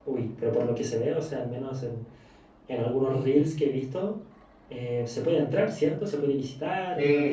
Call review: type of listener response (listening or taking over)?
taking over